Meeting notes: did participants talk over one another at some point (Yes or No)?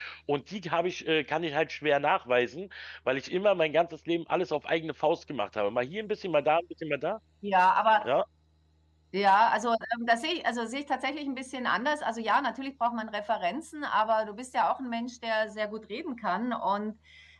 No